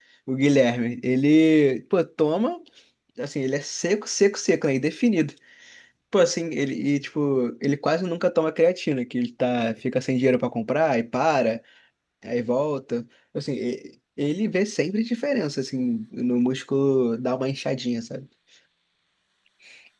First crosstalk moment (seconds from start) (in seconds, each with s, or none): none